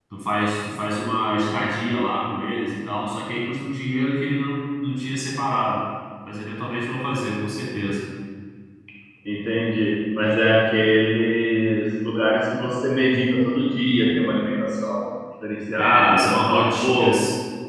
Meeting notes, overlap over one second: present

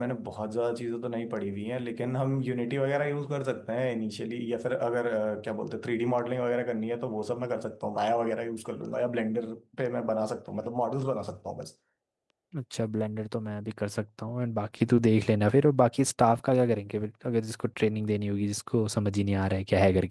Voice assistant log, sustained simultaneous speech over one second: none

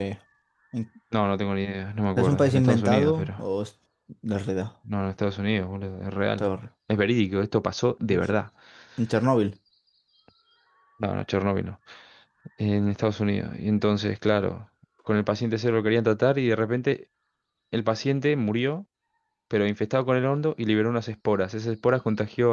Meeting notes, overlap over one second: present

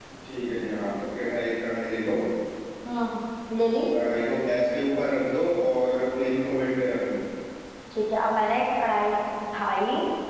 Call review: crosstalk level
none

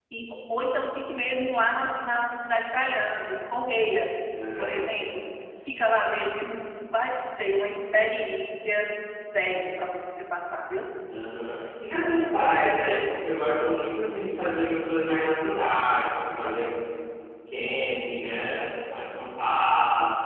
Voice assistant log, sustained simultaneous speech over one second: none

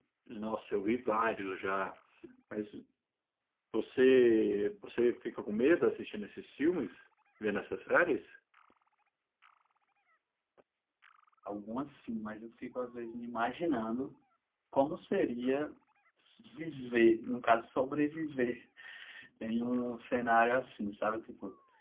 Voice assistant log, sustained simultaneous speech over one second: none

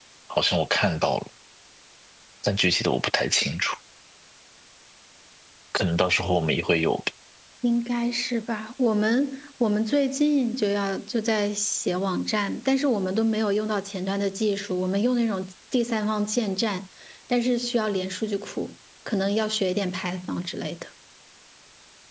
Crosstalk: none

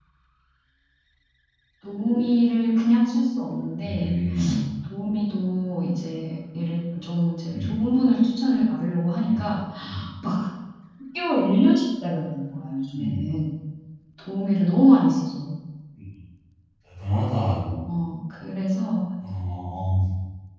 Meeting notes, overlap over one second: none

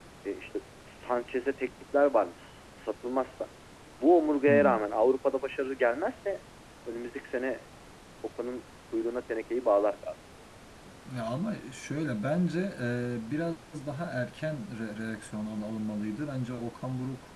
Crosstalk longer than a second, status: none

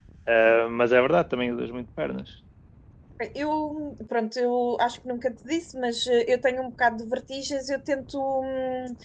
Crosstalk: none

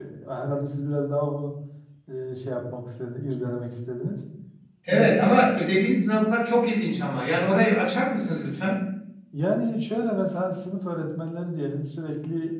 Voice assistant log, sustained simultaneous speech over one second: none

